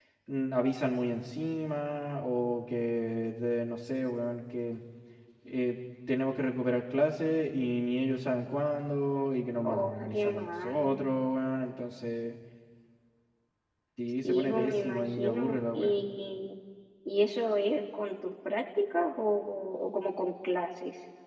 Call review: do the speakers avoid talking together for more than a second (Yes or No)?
No